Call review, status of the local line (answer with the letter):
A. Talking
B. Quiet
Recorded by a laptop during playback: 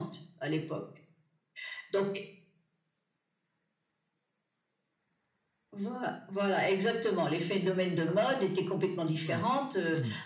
A